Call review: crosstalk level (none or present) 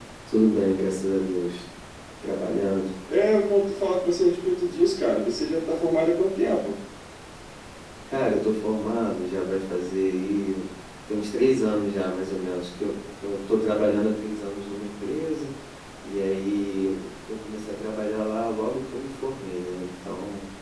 none